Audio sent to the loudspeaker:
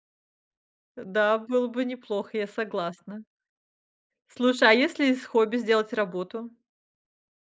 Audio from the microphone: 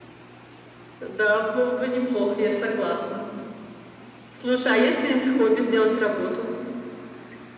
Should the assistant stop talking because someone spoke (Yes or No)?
No